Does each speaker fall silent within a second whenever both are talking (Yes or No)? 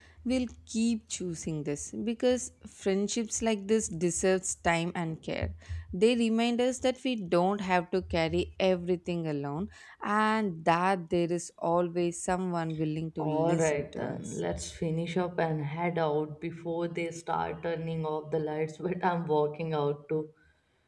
No